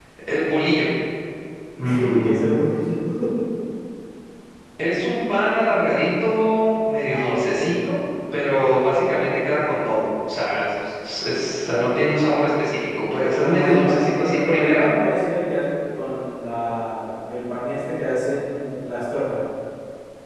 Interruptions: present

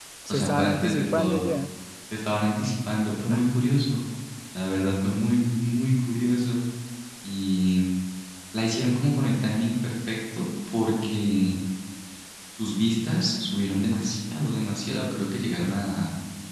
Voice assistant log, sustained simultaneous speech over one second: present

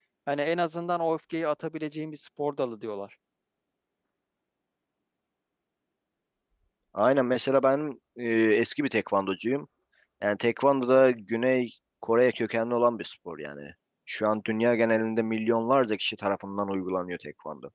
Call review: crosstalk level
none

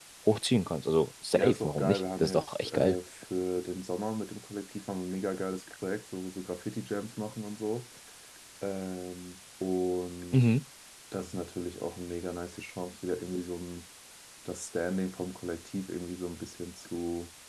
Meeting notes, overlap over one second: present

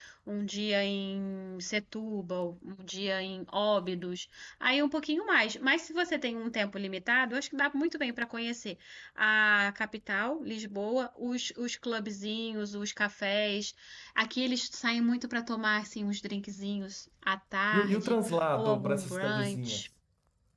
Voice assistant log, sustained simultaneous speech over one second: present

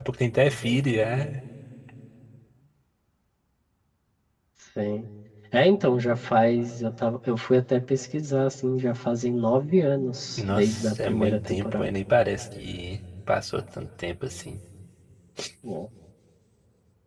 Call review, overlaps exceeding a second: present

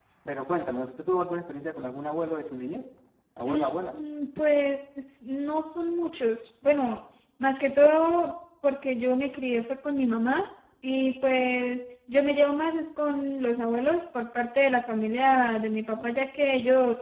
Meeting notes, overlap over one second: none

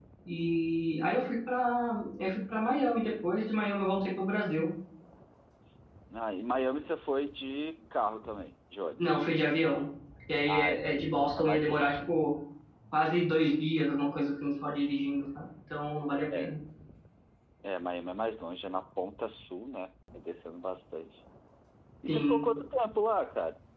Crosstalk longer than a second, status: present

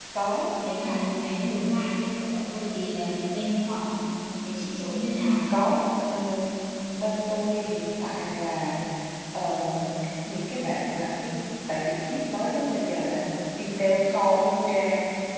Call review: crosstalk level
none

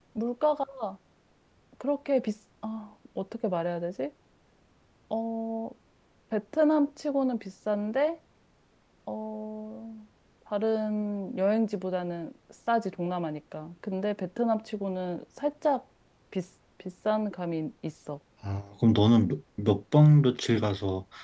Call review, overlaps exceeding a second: none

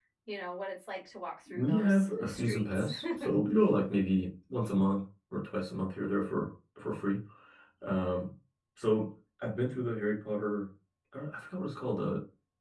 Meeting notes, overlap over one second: present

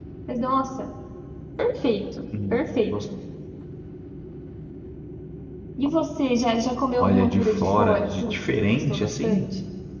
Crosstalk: present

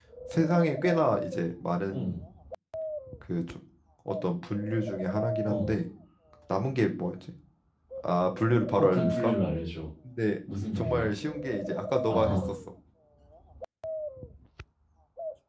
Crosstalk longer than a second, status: none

